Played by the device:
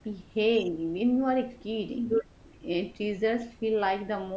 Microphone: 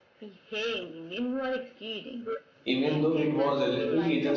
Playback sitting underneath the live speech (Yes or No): Yes